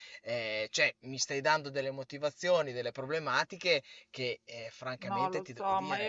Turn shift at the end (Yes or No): Yes